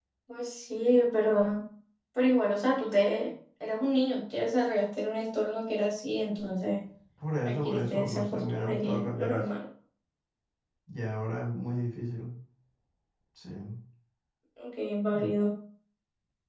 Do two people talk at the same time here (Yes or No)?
Yes